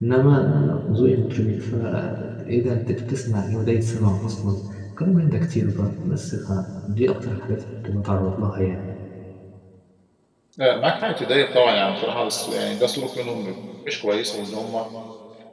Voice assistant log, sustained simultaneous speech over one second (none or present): none